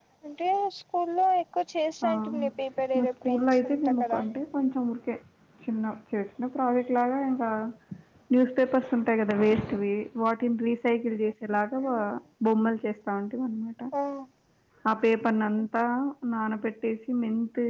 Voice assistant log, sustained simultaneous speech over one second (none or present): present